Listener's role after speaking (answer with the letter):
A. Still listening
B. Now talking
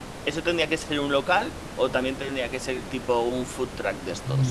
B